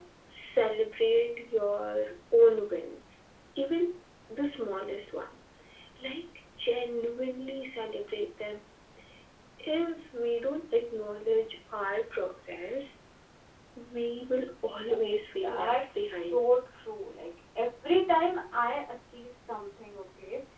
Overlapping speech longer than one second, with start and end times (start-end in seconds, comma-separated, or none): 14.9-16.4